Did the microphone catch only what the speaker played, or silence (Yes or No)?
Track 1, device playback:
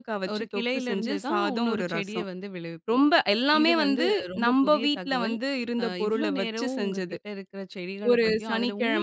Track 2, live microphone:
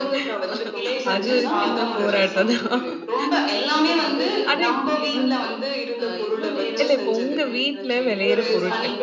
No